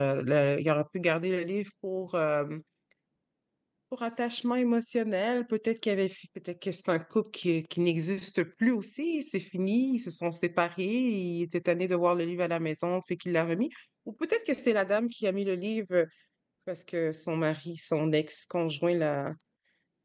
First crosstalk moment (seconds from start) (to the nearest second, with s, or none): none